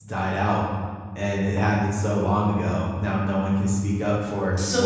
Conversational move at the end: taking over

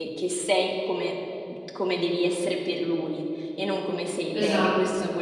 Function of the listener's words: listening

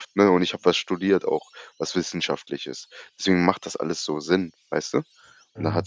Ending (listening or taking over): taking over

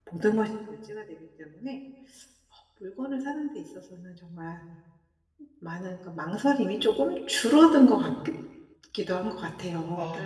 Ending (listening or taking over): taking over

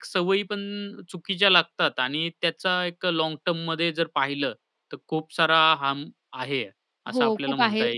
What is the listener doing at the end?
taking over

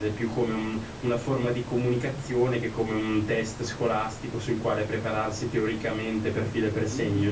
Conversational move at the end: taking over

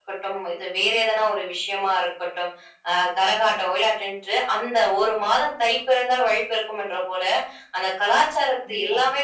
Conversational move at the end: listening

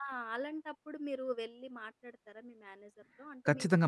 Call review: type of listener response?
taking over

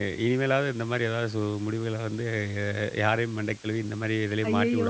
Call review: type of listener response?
taking over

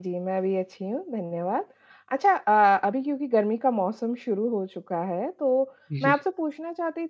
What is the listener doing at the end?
listening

